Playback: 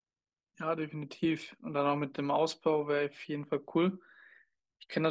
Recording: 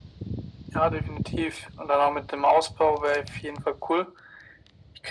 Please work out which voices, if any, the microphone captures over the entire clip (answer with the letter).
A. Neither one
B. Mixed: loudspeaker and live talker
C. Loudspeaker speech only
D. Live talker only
C